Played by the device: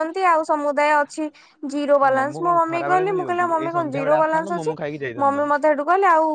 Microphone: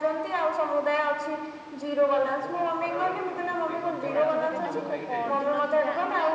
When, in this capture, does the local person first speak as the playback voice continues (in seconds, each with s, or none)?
4.2 s